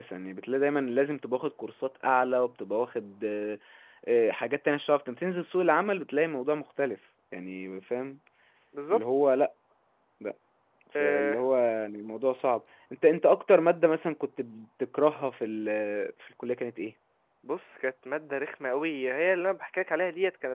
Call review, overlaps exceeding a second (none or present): none